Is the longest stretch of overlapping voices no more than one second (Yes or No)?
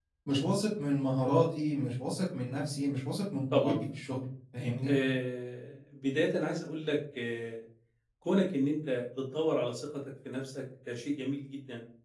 Yes